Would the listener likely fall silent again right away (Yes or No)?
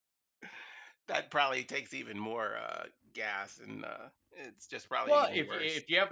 No